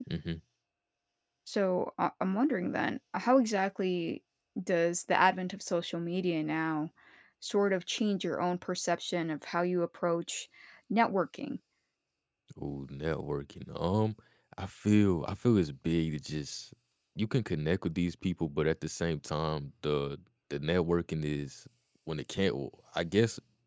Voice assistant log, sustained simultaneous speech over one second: none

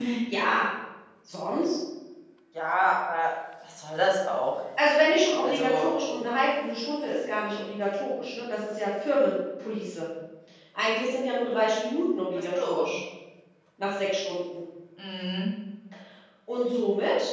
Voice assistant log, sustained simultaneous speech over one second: none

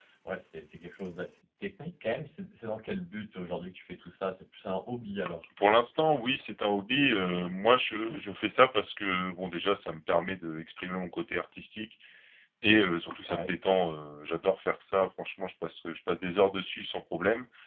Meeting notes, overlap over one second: none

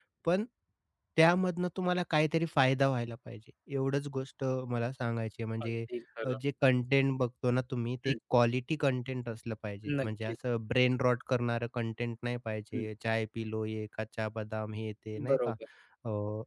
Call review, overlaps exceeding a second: none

